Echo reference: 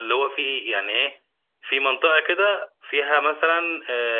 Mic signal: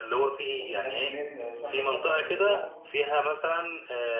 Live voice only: ال 20000 جنيه شاملة السفر بالإقامة

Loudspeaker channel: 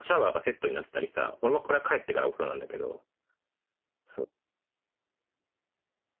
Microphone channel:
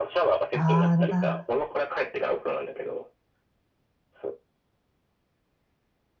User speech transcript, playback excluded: ああ、な、

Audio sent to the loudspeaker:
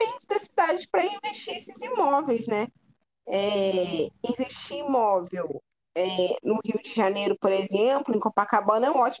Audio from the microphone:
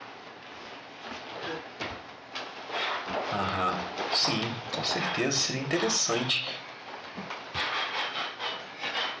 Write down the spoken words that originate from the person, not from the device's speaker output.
Aham. Sim, com certeza seria interessante.

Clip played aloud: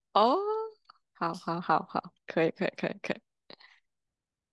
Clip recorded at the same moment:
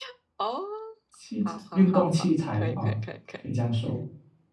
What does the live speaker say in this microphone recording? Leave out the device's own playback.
器材，运动器材了啊，可以这样说。

